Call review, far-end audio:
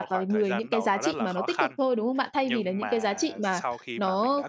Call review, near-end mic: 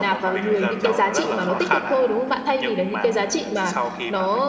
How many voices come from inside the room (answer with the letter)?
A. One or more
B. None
A